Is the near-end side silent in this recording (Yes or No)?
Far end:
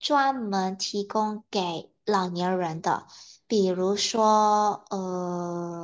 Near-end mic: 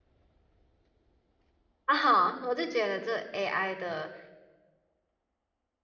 No